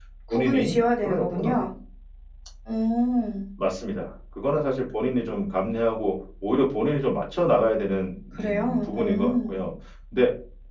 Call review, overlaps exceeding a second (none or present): present